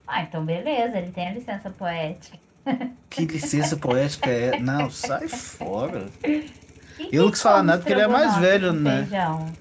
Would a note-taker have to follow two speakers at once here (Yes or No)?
Yes